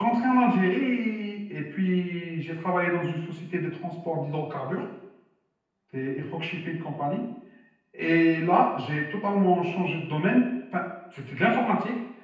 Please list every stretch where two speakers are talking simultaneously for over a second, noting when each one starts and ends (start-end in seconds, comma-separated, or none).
none